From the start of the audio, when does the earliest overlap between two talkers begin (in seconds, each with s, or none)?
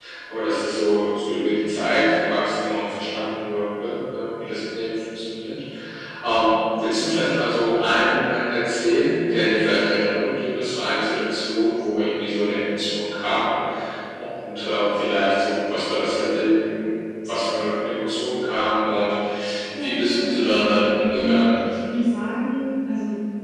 19.8 s